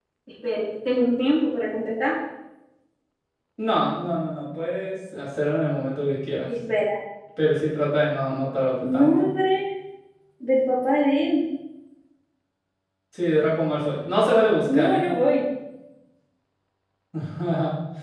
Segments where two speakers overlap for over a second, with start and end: none

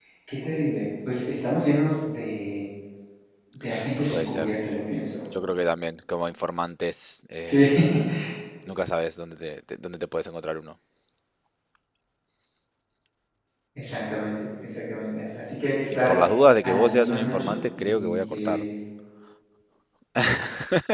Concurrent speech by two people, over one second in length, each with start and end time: 16.6-18.6

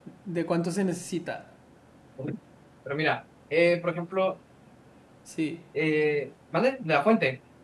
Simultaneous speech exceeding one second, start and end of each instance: none

